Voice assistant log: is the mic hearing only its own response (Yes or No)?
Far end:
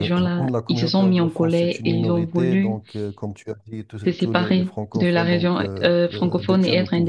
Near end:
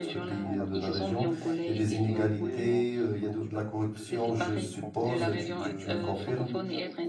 No